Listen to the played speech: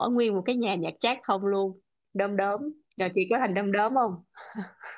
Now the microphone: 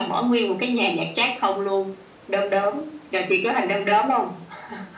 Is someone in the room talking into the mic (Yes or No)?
No